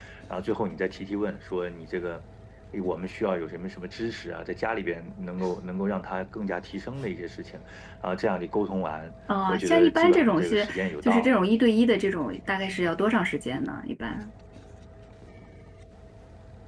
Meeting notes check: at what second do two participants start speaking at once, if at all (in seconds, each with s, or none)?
9.3 s